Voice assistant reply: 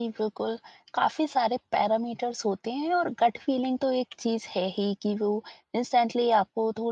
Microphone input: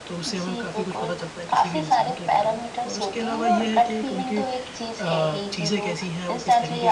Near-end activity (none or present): present